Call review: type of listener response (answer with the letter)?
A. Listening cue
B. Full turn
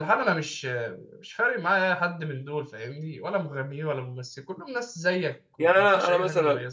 B